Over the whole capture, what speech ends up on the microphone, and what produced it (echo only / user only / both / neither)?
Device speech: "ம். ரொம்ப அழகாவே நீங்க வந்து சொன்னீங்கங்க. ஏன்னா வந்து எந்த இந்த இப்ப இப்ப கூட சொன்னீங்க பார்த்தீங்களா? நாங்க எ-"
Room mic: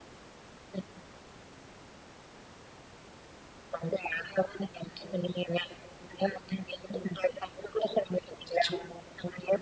both